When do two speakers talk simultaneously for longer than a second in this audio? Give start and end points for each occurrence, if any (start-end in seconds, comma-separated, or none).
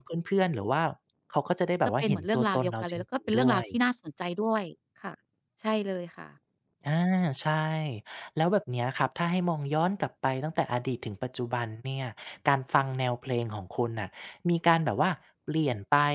2.0-3.6